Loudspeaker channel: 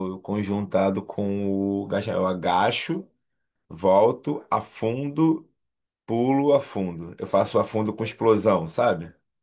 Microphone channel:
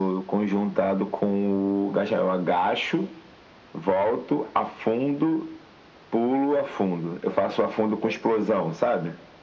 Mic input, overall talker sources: echo only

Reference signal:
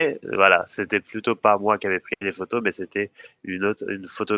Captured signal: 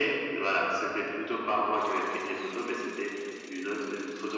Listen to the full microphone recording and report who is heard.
echo only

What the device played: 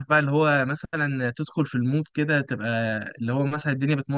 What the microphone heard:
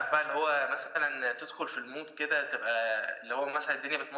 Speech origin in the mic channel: echo only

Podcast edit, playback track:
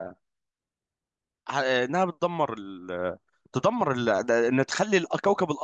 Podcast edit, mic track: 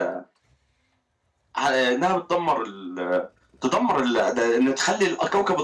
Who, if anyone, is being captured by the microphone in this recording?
echo only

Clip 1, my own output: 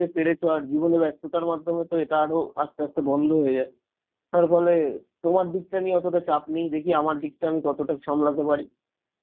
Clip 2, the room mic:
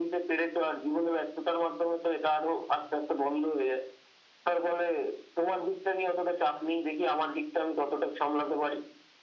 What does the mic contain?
echo only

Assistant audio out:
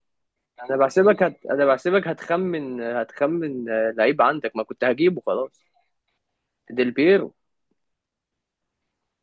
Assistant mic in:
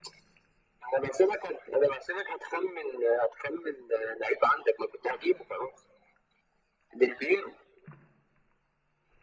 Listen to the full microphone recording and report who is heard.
echo only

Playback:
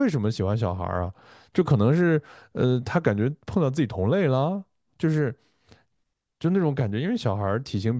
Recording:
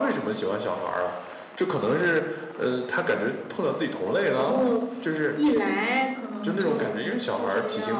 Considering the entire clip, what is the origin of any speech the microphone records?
both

